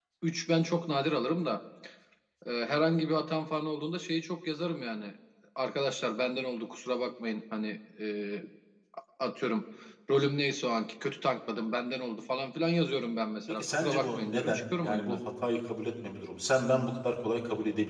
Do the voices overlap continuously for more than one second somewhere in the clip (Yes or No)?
Yes